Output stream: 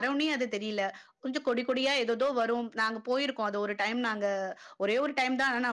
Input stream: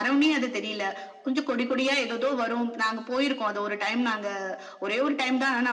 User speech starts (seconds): none

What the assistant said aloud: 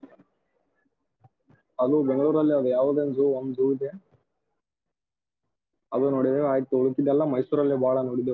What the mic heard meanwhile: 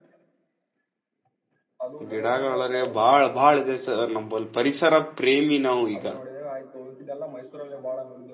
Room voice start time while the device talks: 2.1 s

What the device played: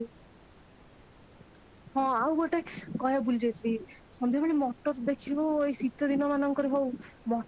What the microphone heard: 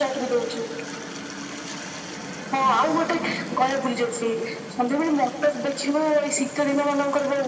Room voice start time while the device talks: none

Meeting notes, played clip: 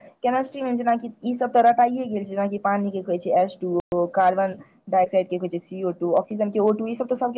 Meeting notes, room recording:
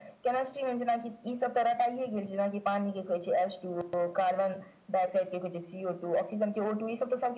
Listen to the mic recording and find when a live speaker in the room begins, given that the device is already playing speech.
none

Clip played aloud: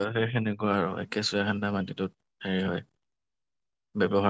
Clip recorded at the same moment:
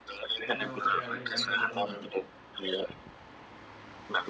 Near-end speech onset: 0.5 s

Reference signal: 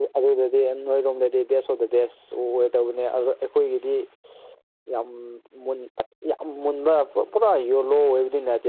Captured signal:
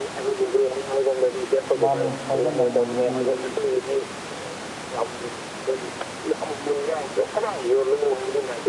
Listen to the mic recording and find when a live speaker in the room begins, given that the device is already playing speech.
1.8 s

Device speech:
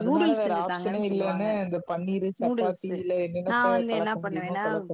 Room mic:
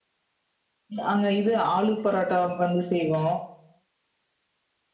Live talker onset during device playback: 1.0 s

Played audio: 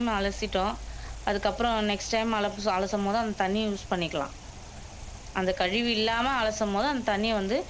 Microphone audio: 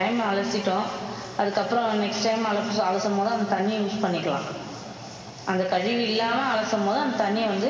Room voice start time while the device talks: none

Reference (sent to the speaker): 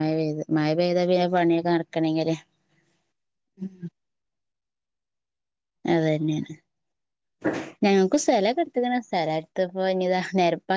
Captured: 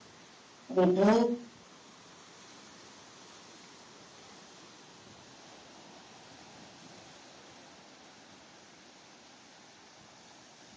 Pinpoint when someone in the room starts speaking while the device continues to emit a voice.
0.7 s

